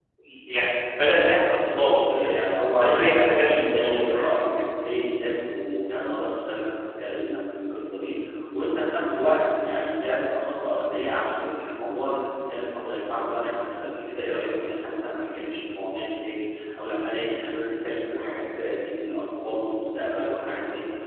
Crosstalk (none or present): present